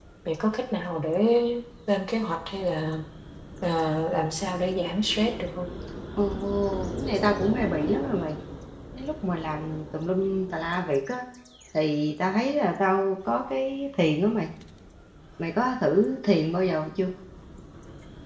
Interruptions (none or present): none